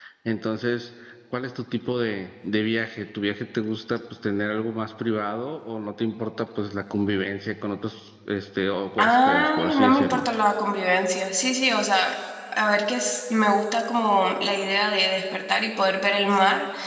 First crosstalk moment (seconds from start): 9.0 s

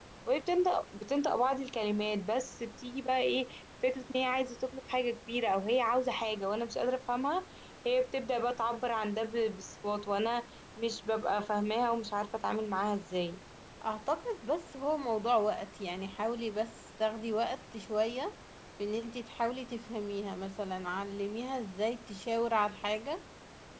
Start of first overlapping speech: none

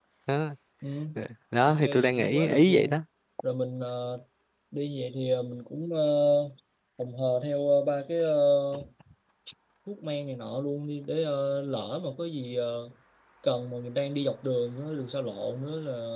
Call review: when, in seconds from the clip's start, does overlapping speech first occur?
1.7 s

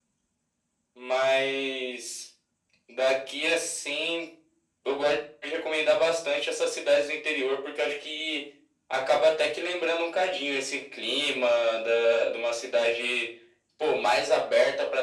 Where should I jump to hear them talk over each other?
none

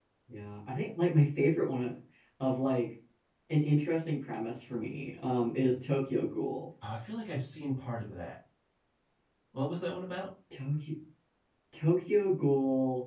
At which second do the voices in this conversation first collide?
none

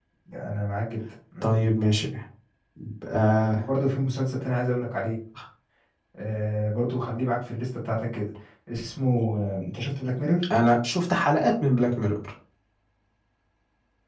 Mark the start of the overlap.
none

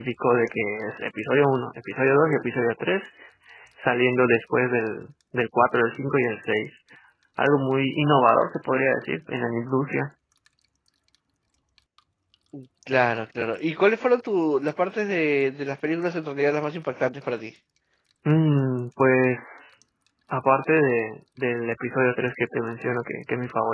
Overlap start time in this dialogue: none

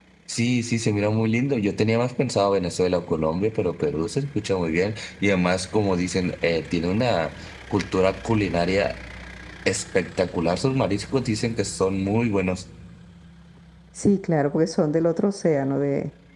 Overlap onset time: none

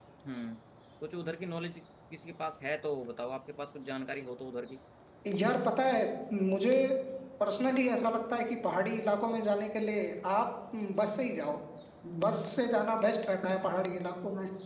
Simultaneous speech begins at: none

